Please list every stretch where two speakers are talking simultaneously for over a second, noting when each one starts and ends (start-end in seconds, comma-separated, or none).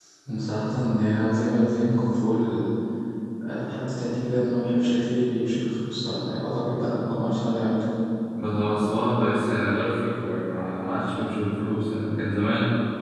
none